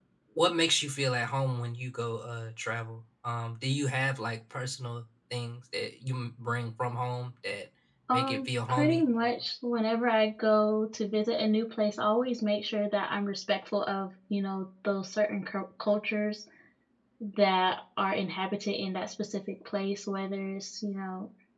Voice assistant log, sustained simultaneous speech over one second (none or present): present